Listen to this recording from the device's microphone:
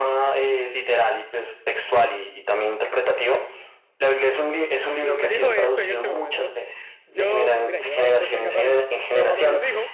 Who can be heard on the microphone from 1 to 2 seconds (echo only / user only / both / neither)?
echo only